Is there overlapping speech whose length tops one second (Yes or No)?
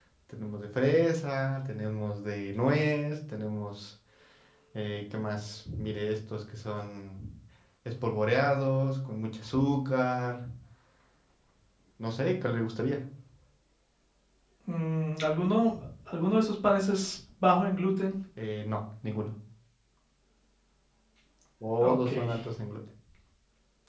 No